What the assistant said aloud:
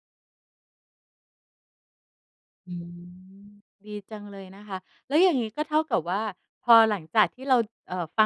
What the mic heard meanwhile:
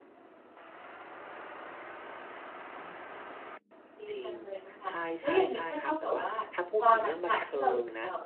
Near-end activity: present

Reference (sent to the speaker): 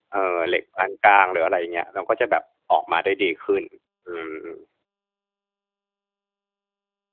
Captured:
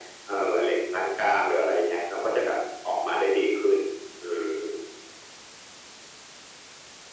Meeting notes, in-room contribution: none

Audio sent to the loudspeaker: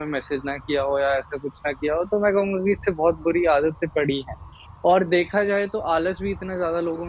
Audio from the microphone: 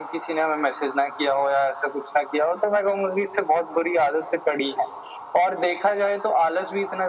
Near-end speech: none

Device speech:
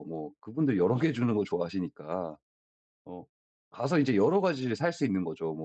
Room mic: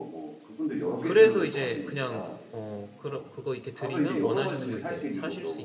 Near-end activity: present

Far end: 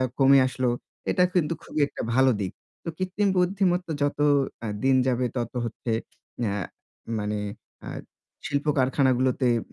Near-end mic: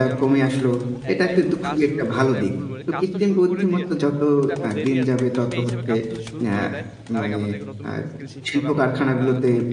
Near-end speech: present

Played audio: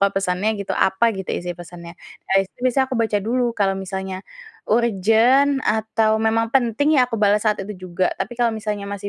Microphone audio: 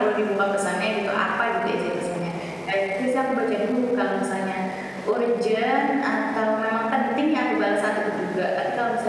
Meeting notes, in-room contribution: none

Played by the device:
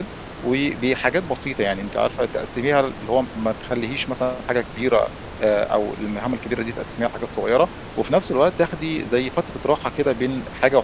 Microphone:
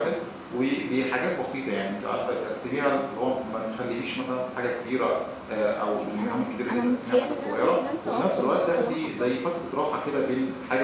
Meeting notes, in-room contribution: present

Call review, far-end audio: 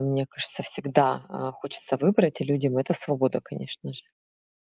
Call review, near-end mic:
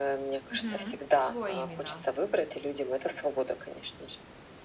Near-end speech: present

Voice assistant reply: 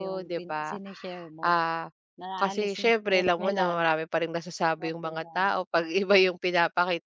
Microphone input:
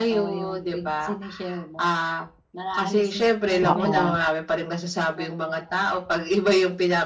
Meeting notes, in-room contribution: present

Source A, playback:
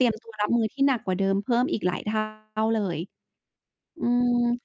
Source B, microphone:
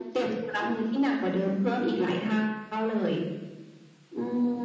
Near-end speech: none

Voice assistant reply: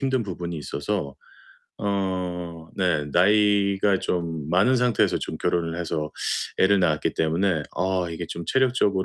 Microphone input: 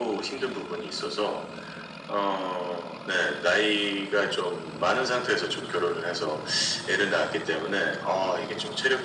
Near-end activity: none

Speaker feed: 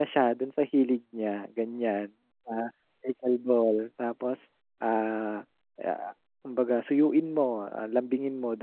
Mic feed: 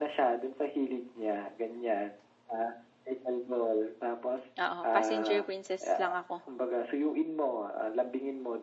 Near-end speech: present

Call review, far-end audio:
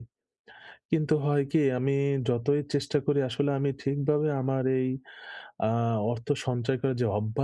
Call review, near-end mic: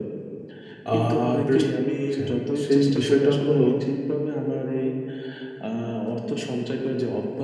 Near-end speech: present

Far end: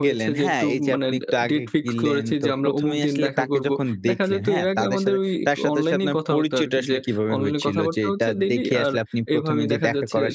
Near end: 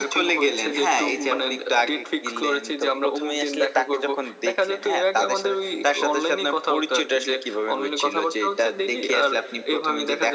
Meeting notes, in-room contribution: none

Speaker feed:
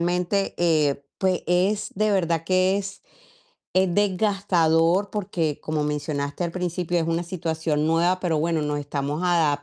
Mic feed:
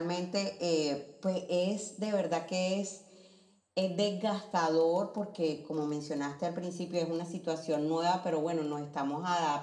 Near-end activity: none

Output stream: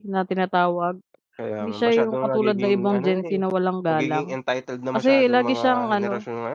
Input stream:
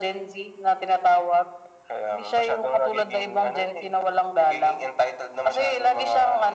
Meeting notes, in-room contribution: none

